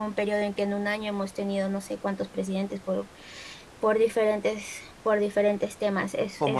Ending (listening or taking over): taking over